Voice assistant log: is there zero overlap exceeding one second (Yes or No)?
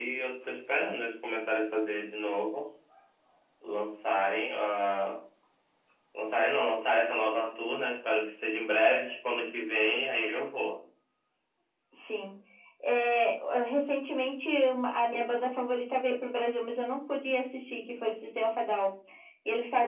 Yes